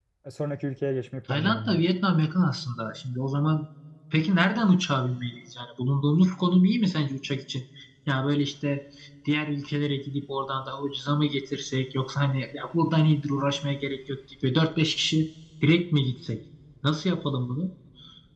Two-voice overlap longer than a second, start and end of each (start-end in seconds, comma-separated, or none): none